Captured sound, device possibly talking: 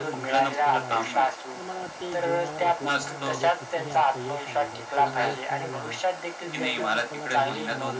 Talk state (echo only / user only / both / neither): both